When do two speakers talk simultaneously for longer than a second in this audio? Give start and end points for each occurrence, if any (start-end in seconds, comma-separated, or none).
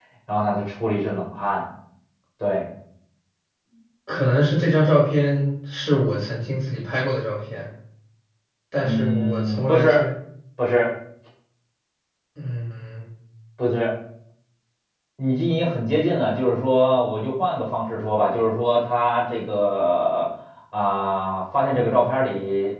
8.8-10.0